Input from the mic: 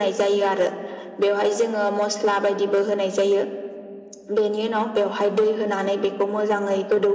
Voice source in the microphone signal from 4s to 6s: echo only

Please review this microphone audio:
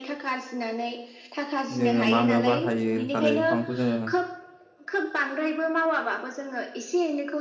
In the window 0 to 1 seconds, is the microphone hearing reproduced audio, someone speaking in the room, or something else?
echo only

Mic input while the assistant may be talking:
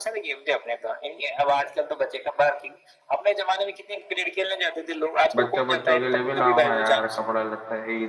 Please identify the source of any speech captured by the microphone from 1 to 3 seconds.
echo only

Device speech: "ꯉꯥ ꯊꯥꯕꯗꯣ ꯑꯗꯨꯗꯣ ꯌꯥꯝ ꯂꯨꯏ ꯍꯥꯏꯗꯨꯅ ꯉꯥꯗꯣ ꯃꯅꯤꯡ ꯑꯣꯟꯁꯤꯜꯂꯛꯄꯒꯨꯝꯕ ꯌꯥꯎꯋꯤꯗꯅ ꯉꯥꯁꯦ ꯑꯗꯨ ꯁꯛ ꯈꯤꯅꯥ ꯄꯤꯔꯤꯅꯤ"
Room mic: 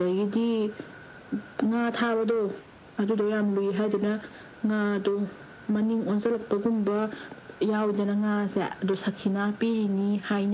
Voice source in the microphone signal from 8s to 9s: echo only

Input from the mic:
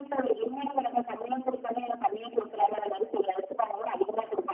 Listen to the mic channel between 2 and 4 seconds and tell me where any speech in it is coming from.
echo only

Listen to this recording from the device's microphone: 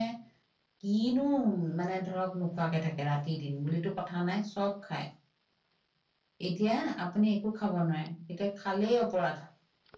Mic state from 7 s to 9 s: echo only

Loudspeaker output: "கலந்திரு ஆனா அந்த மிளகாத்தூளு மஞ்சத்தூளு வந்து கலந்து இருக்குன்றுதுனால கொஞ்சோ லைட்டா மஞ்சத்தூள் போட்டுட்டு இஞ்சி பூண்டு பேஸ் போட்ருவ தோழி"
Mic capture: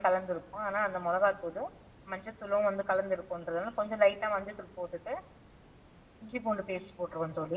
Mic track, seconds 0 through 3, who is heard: echo only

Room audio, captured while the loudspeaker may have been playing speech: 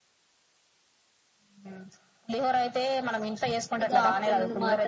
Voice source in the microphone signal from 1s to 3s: echo only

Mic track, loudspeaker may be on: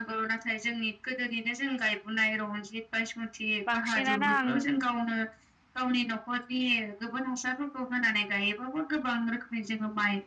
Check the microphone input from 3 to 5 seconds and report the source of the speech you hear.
both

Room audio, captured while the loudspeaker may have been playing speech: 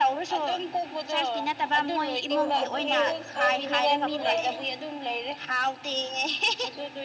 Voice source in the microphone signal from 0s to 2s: echo only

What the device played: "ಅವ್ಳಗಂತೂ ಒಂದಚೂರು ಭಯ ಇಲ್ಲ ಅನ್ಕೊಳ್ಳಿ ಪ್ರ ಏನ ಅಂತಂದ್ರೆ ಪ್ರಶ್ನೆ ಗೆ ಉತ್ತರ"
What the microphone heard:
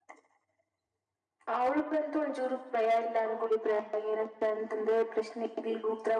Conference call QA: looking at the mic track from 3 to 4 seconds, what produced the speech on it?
both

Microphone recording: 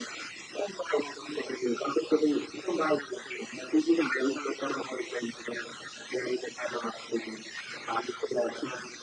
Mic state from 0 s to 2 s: echo only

